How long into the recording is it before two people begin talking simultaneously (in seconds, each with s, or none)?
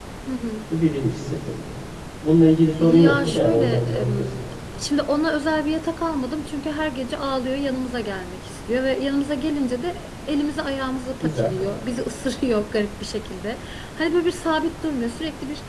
2.8 s